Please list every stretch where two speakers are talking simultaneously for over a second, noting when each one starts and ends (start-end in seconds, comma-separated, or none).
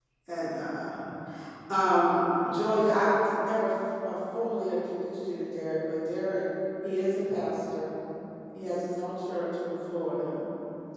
none